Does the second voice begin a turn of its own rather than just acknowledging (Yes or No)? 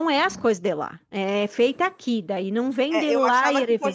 Yes